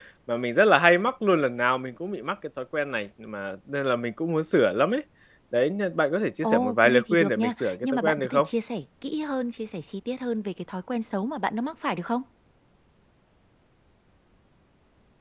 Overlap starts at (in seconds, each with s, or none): 6.4 s